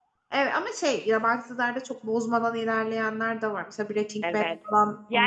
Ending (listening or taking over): taking over